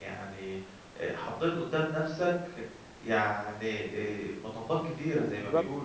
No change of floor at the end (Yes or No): No